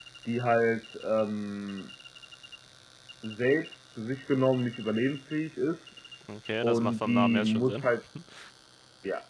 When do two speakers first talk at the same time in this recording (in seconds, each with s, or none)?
6.6 s